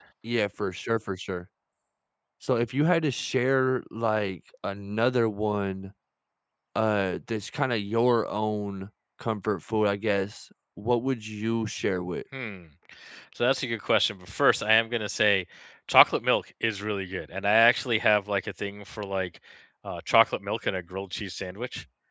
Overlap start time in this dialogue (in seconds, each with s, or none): none